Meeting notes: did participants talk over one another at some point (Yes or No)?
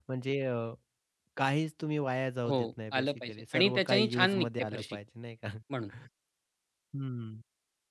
Yes